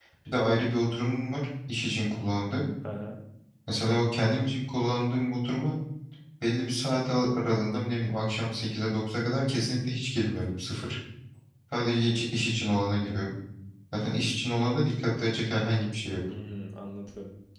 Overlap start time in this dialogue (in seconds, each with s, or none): none